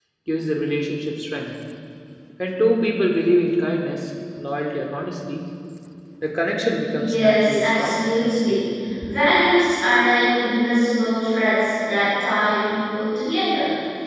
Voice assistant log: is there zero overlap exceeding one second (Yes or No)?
No